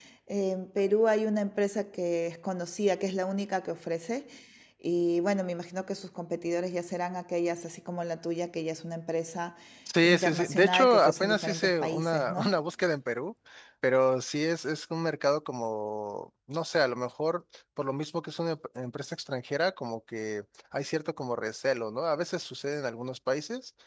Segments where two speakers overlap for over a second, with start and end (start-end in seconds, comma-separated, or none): 10.0-12.6